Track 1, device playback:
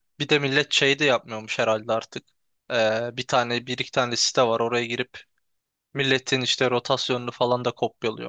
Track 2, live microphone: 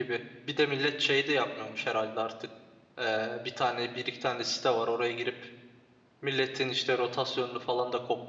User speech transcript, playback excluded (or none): none